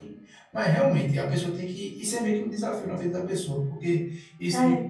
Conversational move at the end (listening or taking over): listening